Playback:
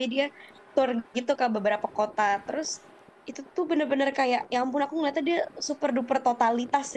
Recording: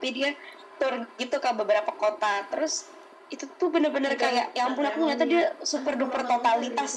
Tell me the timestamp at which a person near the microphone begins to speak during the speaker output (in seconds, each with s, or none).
4.1 s